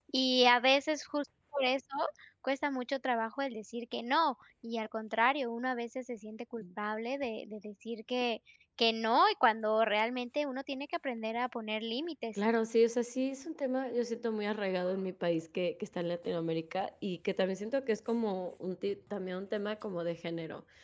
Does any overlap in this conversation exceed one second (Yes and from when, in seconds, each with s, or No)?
No